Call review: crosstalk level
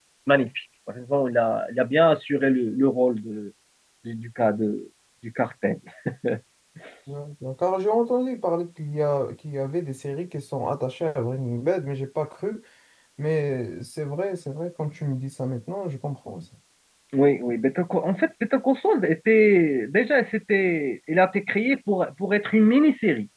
none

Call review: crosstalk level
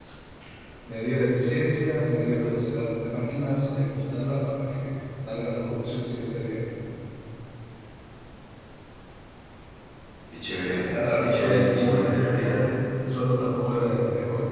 present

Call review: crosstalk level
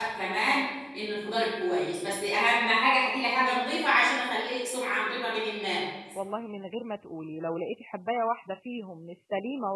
none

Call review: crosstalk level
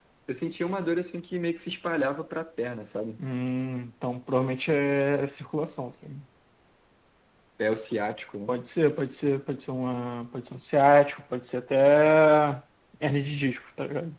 none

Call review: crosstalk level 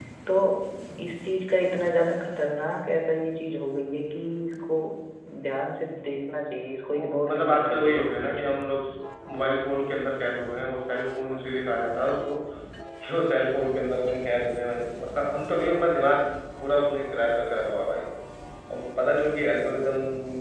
present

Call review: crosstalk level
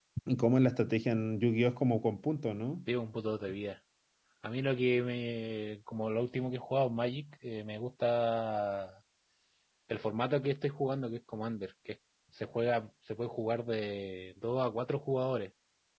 none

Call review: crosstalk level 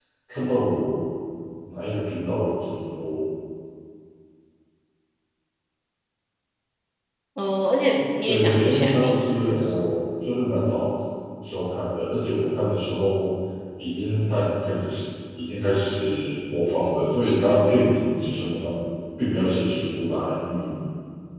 present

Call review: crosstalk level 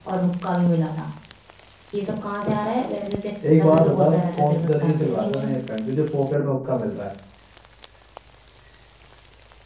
present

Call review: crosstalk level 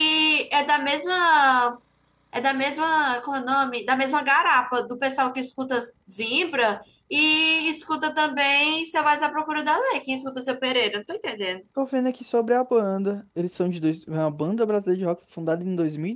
none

